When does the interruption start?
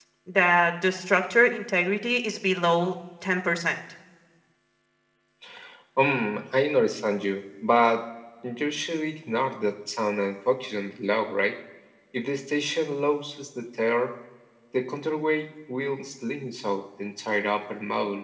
none

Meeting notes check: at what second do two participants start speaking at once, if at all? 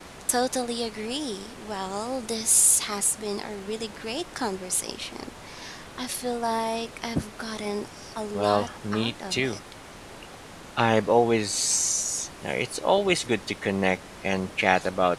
8 s

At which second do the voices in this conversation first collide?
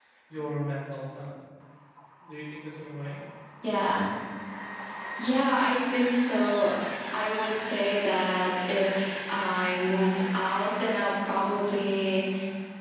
none

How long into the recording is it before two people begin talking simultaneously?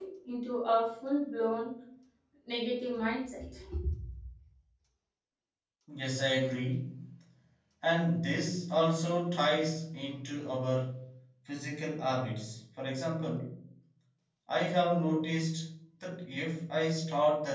none

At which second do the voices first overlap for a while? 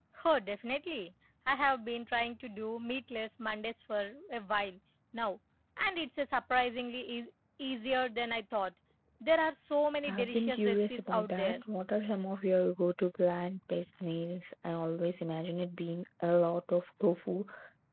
10 s

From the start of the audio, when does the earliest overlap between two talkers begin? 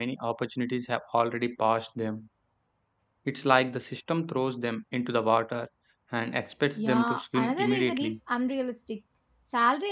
7 s

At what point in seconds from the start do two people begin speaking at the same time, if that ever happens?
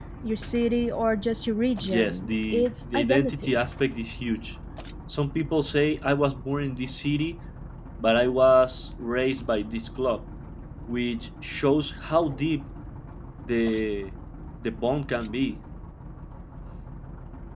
2 s

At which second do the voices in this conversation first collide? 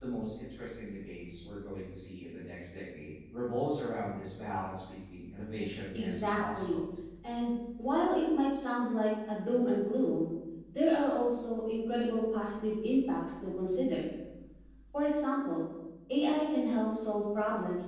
6 s

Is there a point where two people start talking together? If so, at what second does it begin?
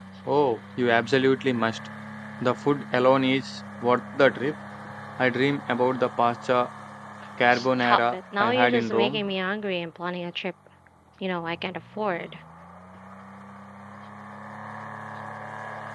8 s

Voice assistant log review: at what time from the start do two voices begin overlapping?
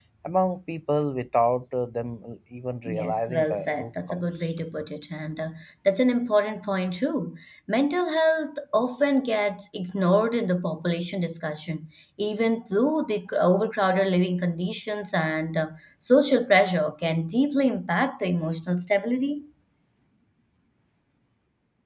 3 s

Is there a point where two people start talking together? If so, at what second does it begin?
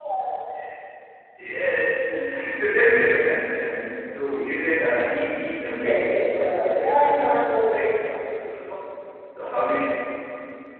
6 s

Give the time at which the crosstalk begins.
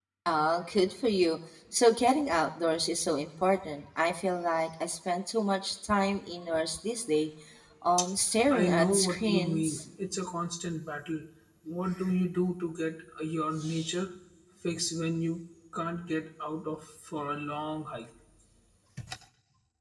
9 s

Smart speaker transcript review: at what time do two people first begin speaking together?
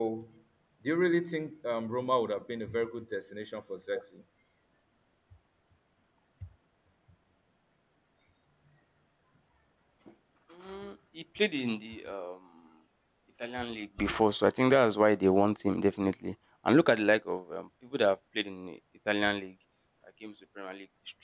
none

